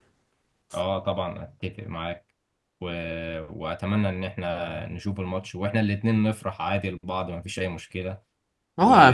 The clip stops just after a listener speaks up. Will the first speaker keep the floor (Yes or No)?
No